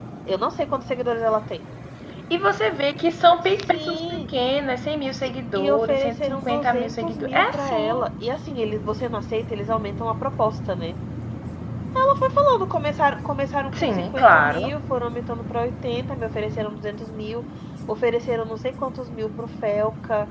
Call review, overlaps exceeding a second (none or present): present